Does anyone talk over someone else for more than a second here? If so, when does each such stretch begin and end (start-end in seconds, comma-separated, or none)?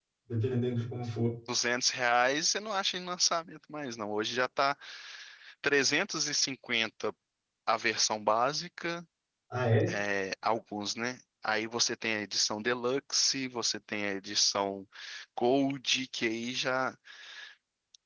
none